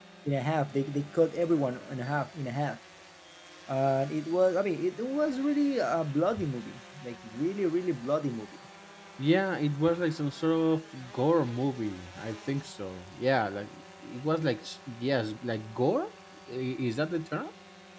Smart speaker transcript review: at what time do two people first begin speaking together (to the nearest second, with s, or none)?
none